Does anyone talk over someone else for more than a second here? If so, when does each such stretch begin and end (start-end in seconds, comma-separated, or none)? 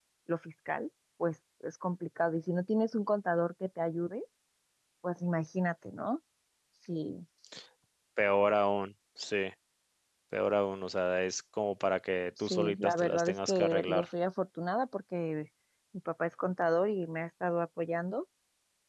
12.4-14.1